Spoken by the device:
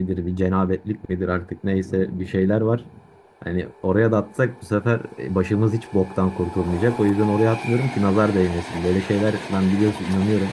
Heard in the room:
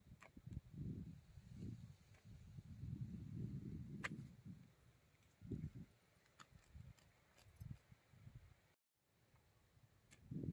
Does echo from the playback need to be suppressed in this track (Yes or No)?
No